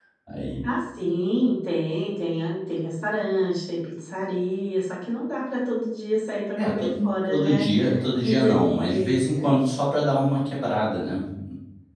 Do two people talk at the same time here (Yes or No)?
Yes